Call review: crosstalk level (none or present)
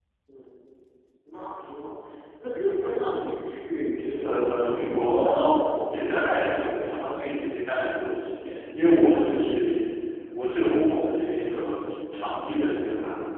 present